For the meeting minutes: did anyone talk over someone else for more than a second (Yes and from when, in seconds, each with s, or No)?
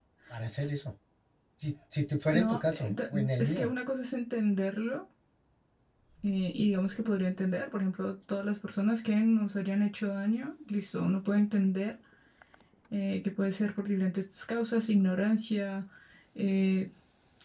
Yes, from 2.3 s